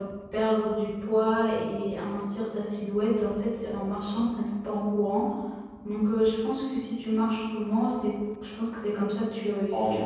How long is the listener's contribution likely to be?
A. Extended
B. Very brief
A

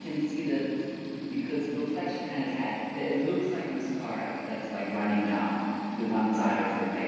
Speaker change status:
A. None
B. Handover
B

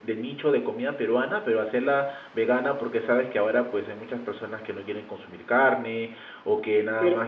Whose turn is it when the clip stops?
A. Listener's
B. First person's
A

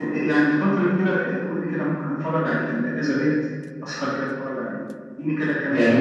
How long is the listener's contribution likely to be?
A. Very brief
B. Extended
B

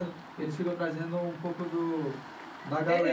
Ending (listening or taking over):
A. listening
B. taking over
B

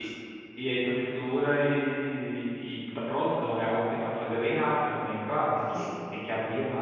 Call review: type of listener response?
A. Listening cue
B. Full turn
A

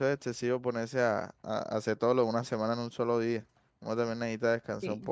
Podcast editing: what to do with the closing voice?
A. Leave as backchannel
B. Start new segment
B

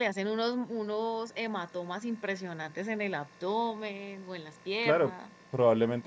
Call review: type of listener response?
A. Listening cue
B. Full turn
B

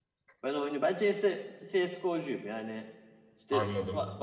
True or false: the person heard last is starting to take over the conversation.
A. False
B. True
A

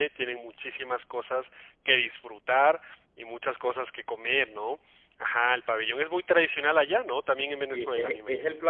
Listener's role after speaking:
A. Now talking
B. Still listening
A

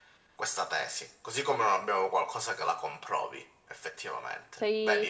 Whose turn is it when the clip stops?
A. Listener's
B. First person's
A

